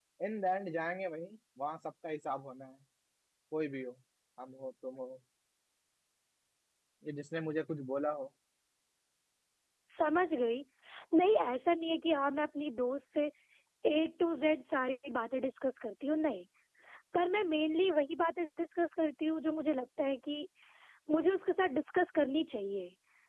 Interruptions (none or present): none